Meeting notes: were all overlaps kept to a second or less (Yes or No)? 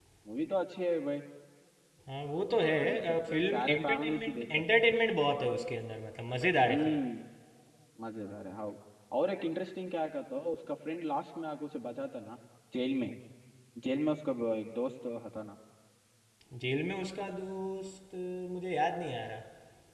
No